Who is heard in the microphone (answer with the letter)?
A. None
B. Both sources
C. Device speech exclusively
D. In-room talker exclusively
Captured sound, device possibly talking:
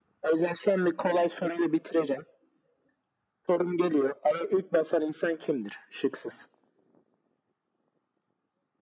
C